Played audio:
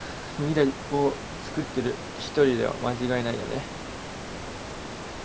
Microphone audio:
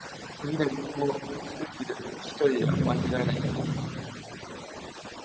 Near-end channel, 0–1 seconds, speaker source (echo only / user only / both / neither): echo only